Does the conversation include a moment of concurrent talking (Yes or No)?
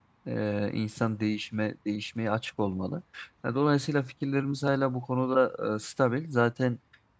No